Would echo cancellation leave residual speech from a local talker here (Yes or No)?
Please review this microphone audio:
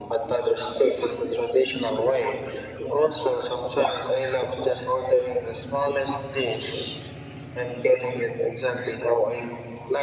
No